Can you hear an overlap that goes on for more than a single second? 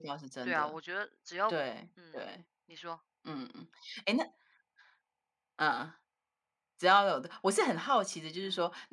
No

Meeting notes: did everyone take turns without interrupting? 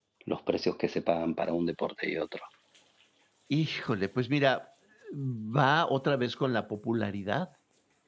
Yes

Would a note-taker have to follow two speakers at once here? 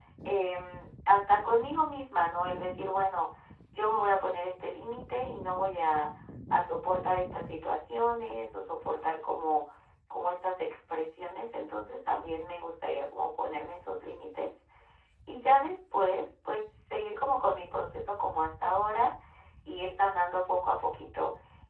No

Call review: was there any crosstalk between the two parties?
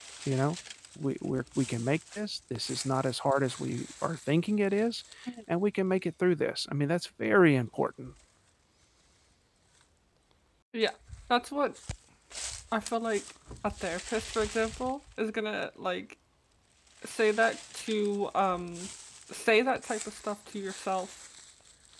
No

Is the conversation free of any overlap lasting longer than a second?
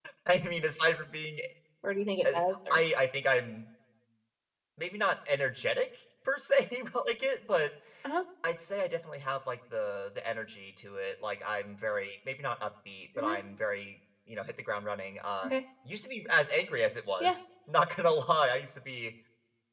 Yes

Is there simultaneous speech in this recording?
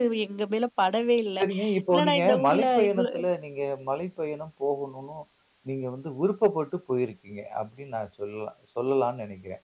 Yes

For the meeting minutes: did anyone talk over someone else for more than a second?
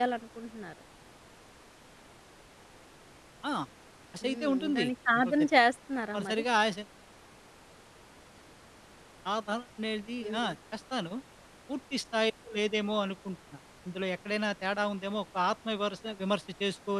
Yes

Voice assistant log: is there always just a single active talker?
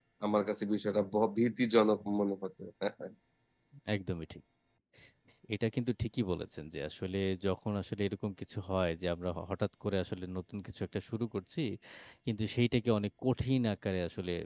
Yes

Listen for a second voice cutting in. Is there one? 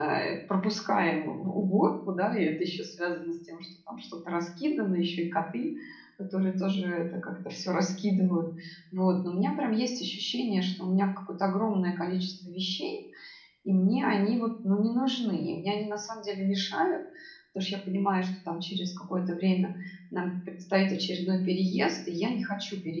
No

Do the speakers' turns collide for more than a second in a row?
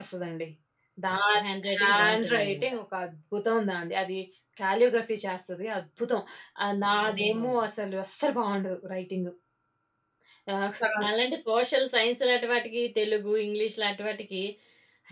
Yes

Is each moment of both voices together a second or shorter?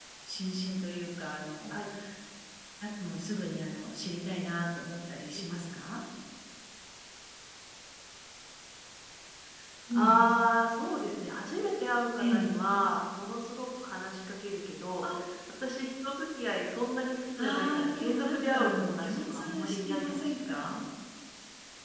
No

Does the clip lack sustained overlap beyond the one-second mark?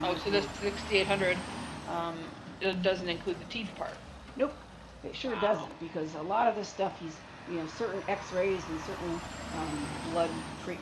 Yes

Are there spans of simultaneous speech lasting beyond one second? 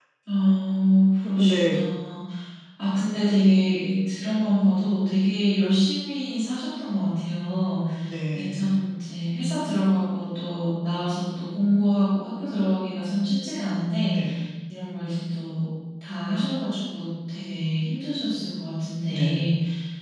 No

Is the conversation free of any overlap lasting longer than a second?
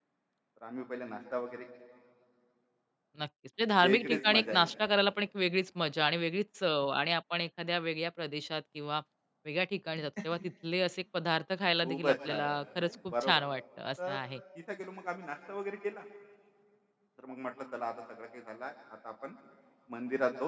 No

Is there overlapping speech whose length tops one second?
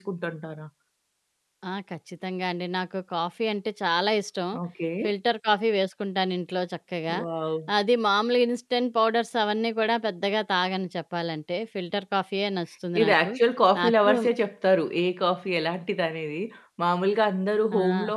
No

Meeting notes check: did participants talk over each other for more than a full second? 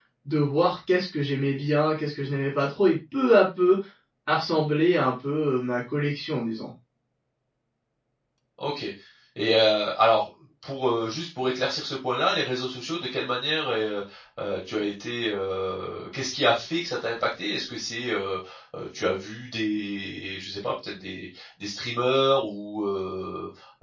No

